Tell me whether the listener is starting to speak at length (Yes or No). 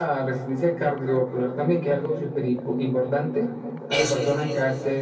No